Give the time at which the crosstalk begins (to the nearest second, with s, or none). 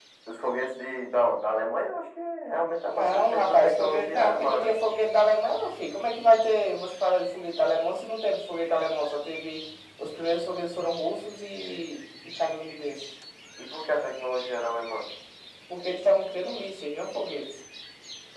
3 s